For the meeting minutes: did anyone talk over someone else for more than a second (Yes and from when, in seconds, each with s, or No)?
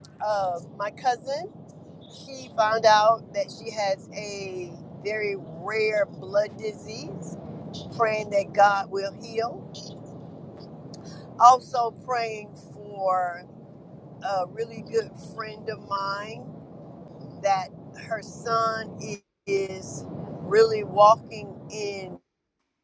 No